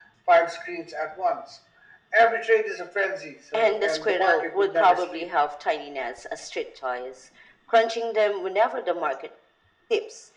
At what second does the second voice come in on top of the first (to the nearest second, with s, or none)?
4 s